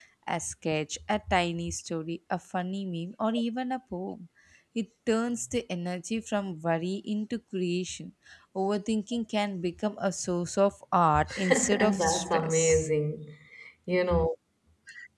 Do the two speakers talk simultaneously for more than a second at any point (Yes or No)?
Yes